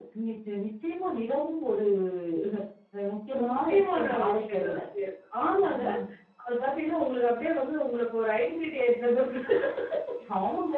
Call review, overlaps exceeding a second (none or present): present